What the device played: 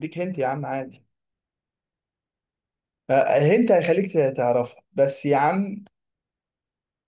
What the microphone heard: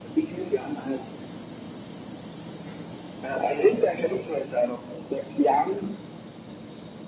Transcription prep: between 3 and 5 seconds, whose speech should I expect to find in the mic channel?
echo only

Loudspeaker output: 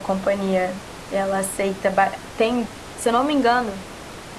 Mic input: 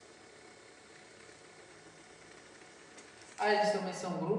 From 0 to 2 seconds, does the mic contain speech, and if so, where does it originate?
neither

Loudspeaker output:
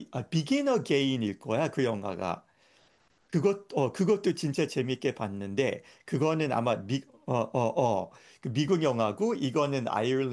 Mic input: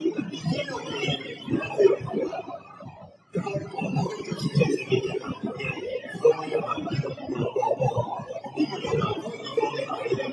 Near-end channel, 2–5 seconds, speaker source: echo only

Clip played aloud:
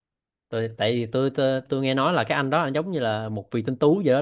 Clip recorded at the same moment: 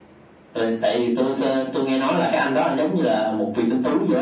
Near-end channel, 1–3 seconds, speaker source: echo only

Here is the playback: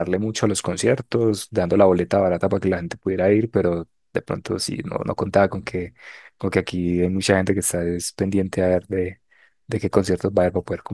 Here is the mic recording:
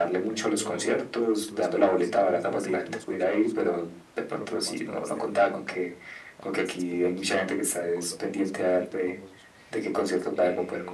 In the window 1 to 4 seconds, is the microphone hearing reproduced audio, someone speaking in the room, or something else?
both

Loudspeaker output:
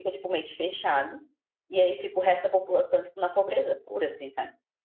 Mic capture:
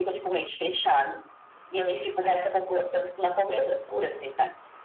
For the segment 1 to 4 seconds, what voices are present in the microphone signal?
echo only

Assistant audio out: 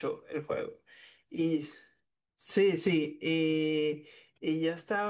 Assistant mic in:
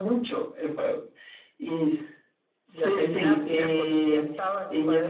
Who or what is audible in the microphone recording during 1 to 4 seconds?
both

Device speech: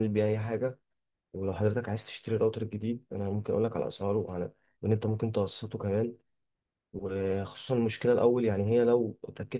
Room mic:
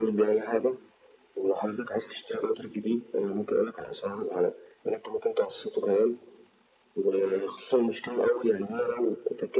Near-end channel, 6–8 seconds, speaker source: echo only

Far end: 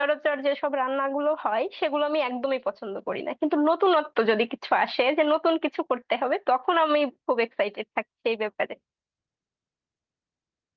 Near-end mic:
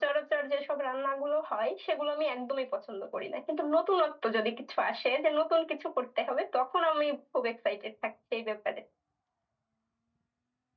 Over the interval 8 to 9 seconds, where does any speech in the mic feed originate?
echo only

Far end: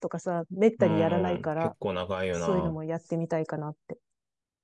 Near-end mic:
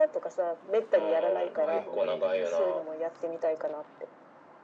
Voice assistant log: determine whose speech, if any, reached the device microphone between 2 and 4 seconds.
both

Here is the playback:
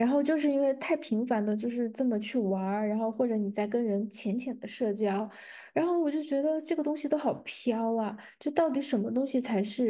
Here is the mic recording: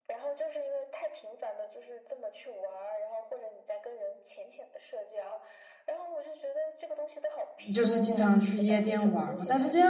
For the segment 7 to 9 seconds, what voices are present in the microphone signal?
both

